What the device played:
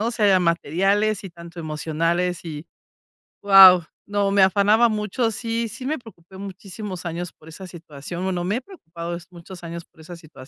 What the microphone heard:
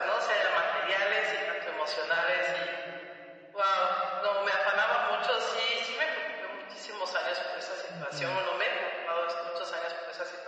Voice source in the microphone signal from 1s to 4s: echo only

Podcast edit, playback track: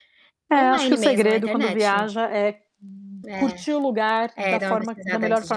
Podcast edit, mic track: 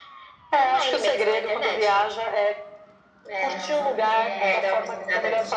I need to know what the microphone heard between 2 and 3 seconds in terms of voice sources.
echo only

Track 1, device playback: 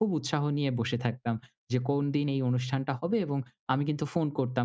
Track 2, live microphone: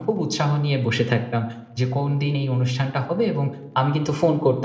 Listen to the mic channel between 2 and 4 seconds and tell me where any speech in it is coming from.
echo only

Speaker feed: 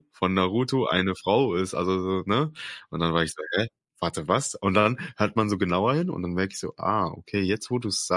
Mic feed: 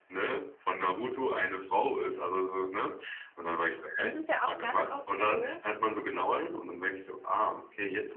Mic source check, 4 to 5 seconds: both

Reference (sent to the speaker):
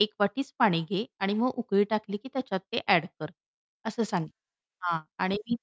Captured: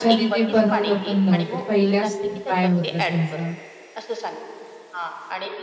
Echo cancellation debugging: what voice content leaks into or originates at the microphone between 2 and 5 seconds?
both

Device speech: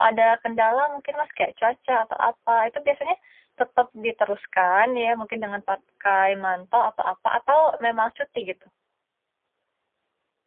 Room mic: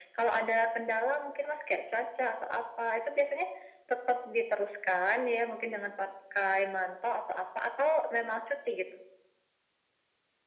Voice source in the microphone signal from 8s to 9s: echo only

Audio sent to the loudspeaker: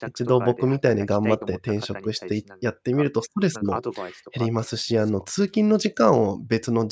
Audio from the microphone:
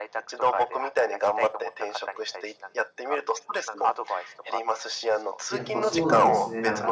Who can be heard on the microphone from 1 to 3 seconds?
echo only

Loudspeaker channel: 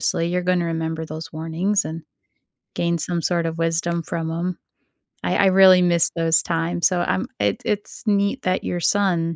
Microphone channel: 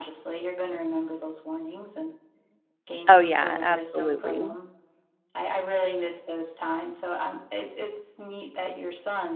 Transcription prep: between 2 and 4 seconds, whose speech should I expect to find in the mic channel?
both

